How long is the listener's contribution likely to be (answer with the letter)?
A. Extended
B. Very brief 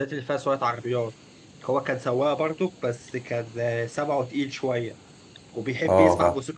B